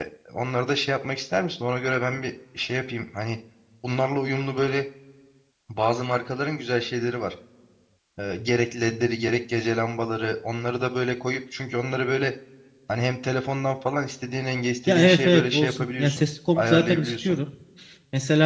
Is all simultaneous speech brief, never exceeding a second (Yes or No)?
No